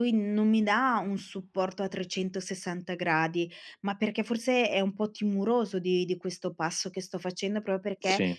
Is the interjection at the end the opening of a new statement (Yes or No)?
No